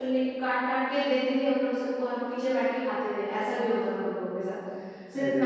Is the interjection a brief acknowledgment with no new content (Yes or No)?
Yes